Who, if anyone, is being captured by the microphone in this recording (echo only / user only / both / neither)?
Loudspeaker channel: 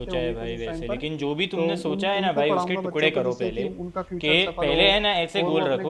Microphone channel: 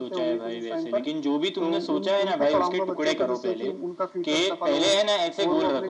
echo only